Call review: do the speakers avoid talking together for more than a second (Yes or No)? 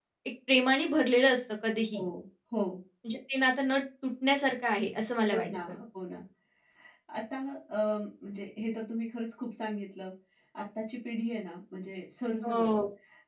Yes